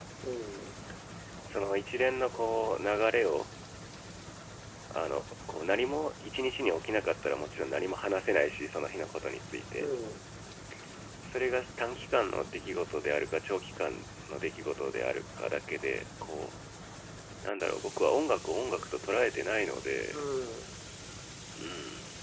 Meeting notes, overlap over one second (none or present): none